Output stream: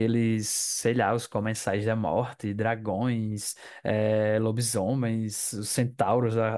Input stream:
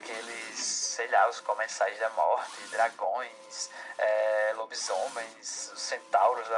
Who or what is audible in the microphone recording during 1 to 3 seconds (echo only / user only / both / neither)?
echo only